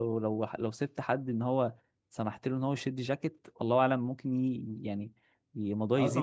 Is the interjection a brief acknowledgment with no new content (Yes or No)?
No